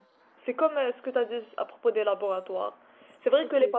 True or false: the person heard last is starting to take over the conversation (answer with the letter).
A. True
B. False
B